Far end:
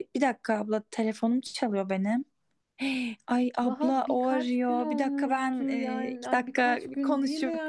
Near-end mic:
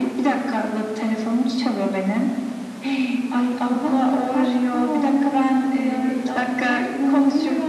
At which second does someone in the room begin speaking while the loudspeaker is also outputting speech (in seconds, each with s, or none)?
none